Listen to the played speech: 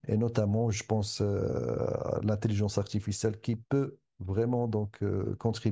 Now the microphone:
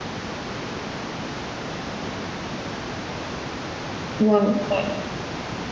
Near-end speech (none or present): present